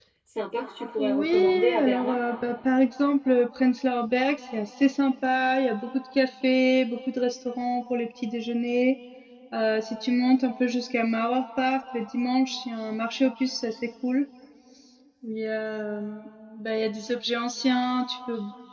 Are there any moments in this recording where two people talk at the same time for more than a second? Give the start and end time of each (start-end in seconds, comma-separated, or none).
1.0-2.2